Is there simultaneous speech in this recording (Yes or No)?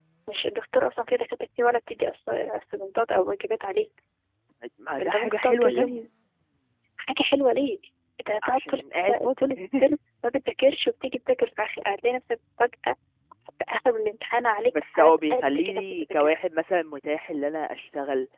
Yes